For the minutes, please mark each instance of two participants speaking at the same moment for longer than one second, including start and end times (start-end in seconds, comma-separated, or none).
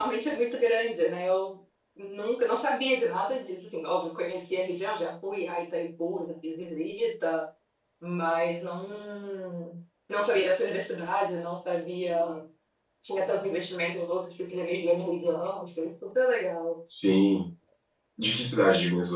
none